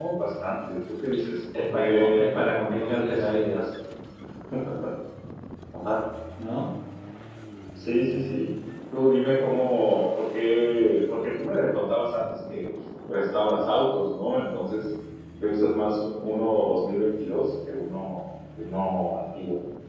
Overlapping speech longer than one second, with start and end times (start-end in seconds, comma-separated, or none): 1.5-3.6